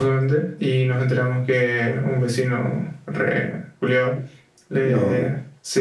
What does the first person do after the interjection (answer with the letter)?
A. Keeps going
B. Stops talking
A